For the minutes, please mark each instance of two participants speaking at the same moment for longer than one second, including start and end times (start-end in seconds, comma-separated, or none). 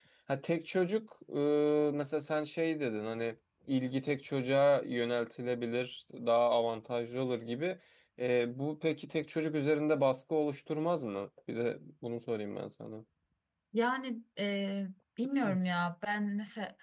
none